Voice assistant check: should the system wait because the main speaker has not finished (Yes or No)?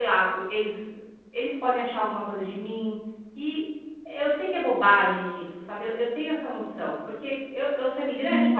No